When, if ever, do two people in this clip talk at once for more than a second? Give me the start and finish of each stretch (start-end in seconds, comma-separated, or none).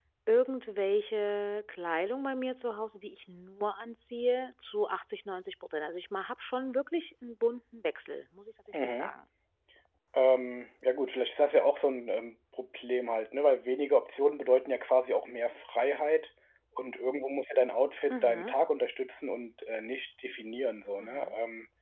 none